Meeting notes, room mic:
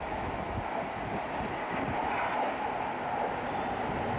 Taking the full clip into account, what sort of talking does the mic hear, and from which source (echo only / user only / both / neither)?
neither